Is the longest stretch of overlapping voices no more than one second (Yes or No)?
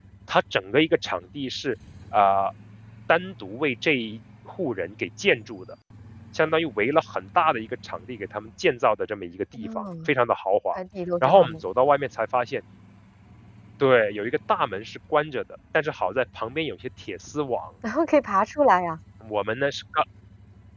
Yes